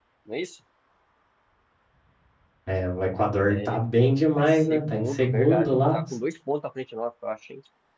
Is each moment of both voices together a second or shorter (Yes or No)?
No